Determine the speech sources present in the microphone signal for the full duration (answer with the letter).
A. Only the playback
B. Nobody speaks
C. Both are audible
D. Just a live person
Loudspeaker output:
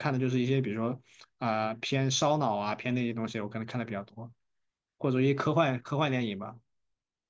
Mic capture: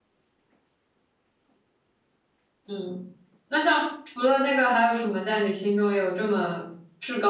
D